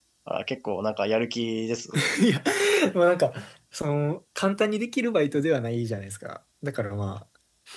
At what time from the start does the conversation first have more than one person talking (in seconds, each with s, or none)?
none